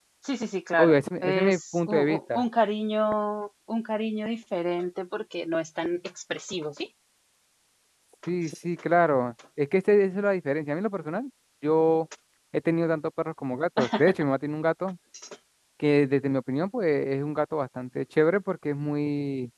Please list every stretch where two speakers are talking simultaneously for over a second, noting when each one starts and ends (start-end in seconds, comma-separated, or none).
0.8-2.4